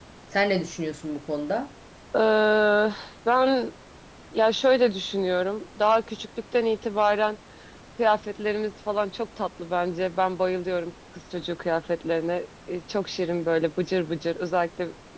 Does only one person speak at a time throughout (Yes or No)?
Yes